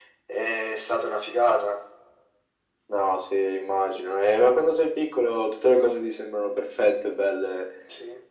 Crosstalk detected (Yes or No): No